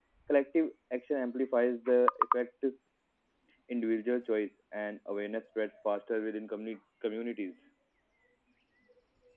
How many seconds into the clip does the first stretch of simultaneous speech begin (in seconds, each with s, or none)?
none